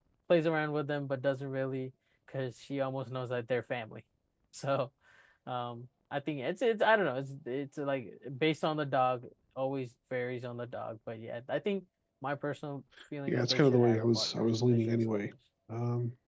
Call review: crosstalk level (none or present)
present